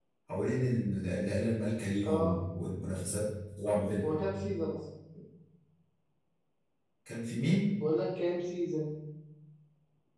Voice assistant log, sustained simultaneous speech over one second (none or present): none